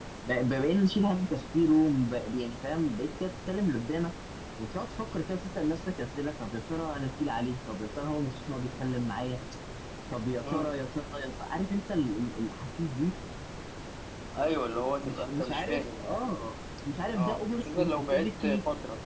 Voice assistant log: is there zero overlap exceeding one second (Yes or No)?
No